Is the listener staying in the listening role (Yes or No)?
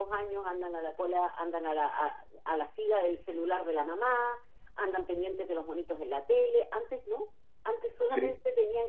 Yes